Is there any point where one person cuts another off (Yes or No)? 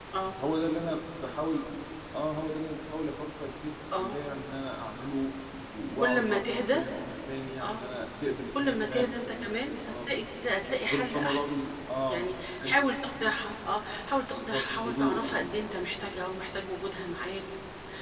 Yes